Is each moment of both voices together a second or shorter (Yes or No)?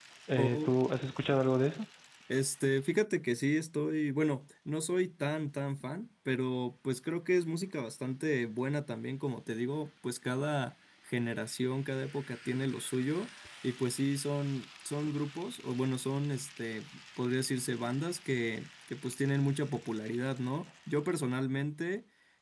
Yes